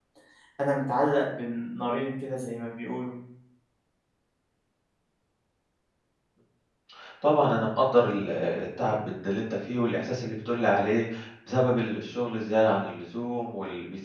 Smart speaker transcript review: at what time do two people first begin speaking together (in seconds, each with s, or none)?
none